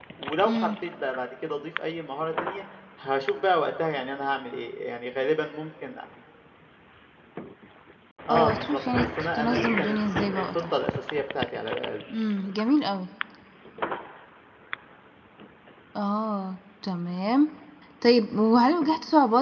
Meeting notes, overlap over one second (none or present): present